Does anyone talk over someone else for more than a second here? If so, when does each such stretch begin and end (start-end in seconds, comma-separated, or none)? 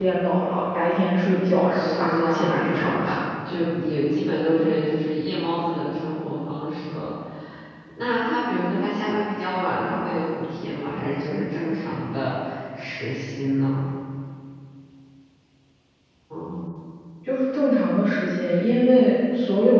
1.7-3.2